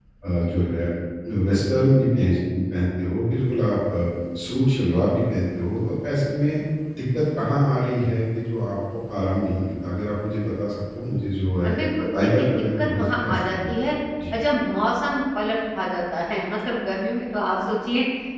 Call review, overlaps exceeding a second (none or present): present